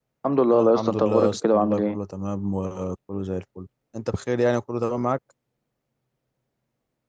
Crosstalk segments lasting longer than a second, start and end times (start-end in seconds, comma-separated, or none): 0.5-2.0